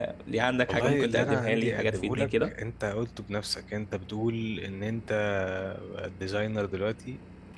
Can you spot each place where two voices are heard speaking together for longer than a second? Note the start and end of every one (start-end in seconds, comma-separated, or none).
0.7-2.5